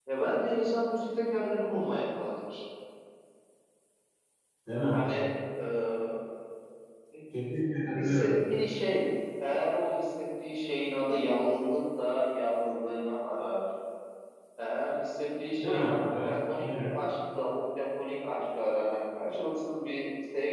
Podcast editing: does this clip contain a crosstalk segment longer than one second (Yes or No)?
Yes